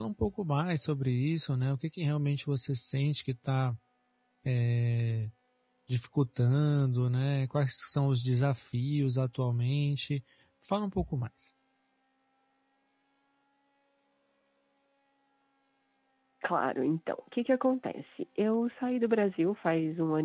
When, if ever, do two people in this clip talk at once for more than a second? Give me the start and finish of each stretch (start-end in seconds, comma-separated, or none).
none